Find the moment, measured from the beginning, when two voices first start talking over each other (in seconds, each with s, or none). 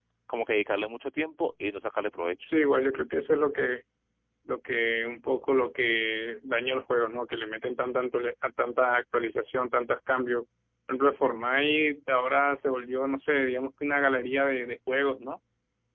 none